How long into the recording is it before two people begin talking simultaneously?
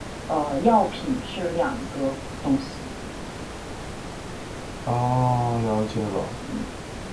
none

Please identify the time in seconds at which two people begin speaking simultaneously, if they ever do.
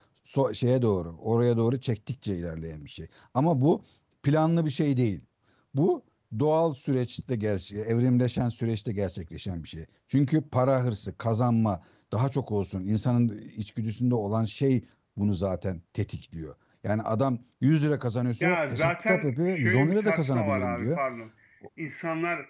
18 s

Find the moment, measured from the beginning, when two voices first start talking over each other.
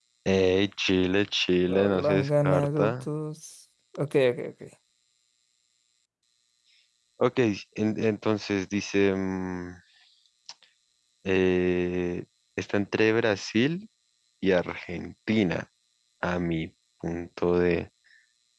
2 s

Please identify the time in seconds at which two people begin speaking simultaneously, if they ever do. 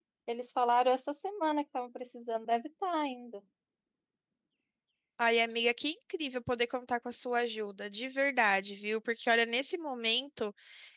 none

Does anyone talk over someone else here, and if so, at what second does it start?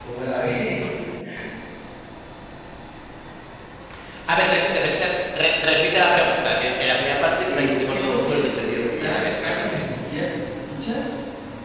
7 s

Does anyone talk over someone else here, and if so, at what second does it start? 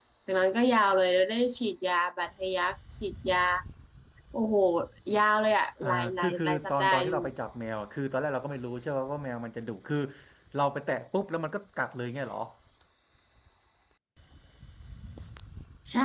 6 s

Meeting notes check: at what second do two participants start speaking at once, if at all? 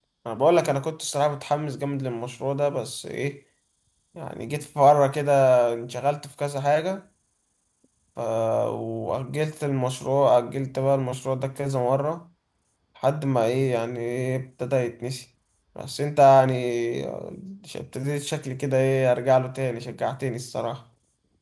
none

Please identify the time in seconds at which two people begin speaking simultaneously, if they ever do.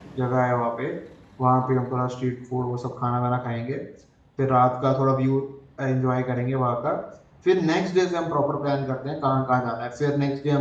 none

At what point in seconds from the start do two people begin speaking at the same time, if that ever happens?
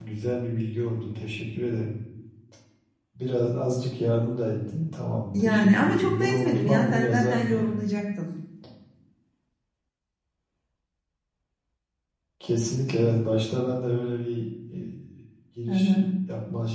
5 s

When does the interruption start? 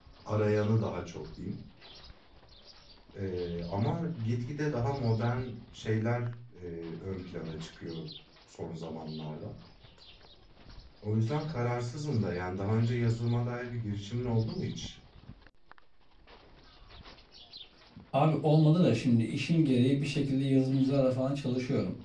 none

